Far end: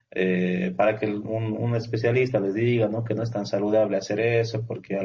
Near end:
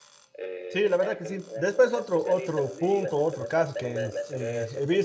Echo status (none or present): present